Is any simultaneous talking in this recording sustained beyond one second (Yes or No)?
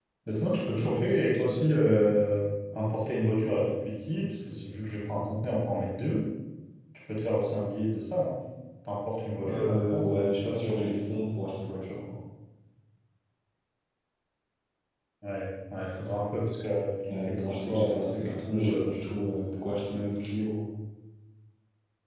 Yes